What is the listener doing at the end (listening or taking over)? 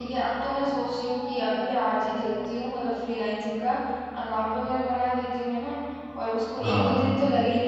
listening